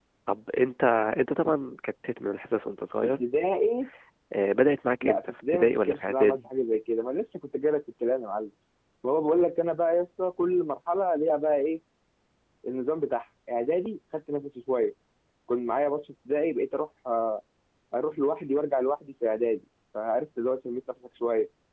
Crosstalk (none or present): present